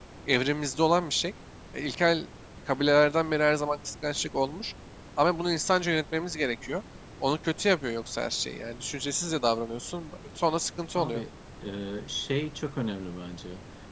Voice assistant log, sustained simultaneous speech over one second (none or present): none